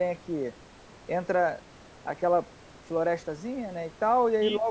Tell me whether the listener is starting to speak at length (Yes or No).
No